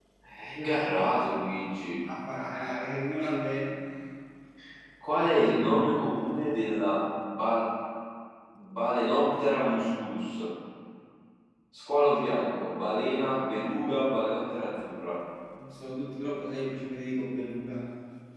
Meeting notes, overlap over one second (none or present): none